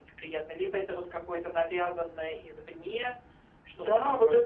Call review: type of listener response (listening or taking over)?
taking over